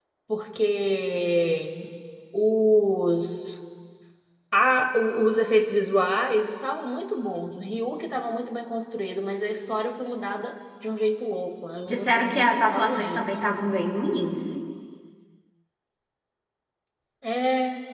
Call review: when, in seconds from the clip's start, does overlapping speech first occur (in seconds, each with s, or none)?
11.9 s